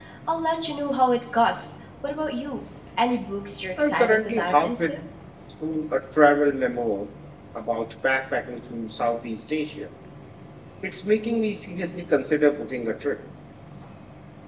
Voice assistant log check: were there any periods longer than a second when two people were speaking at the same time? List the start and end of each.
3.8-5.0

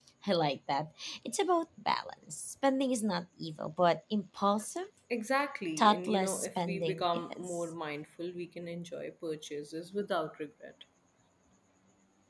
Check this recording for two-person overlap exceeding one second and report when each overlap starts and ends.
5.8-7.6

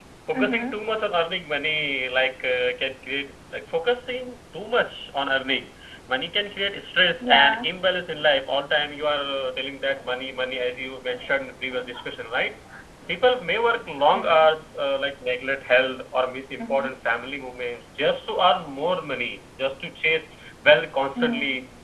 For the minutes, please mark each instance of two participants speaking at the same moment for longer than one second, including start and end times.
none

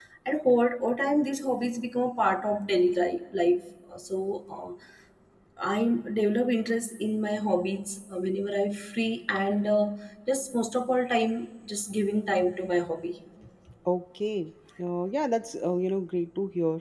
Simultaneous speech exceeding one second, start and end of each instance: none

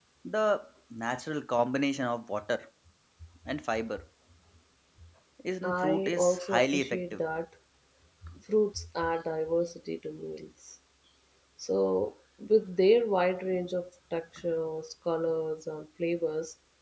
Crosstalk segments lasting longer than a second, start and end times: 5.6-7.2

